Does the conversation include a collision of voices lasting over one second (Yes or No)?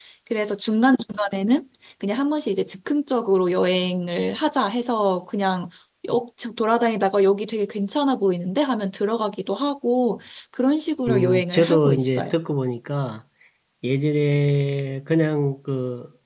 Yes